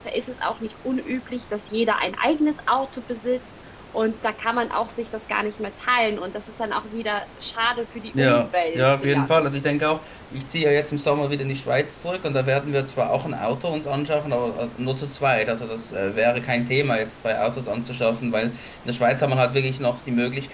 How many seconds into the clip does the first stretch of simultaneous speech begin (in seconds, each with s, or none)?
8.1 s